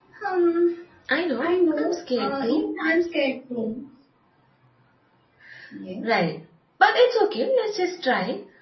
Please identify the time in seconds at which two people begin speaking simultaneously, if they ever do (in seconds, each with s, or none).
1.4 s